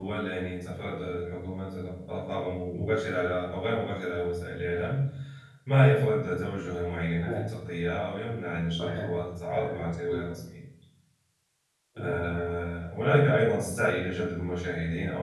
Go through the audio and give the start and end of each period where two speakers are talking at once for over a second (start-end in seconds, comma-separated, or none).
8.8-10.2